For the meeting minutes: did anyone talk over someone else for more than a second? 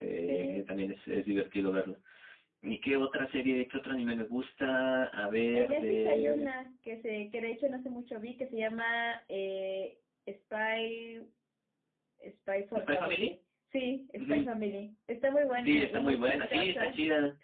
Yes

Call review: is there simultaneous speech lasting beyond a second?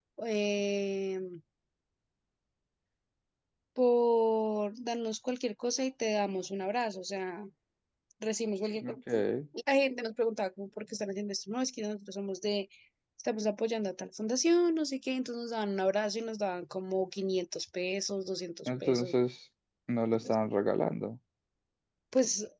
No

